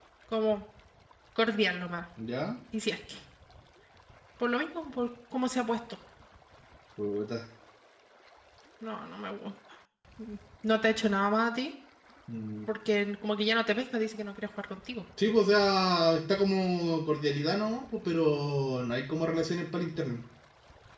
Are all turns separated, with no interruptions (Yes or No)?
Yes